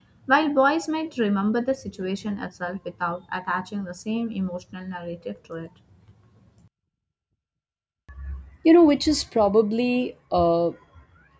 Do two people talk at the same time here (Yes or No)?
No